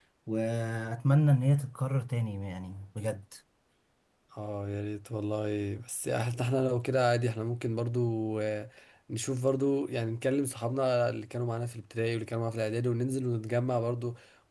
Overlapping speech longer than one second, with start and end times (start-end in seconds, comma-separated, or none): none